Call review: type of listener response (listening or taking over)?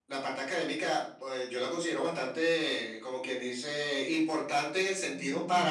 listening